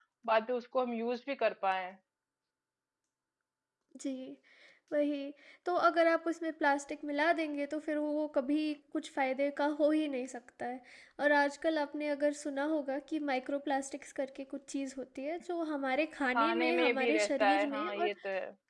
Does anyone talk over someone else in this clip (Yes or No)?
Yes